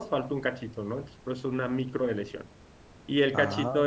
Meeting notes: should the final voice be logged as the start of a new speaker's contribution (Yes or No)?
No